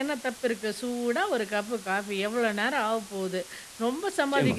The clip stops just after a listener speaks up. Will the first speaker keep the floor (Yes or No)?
Yes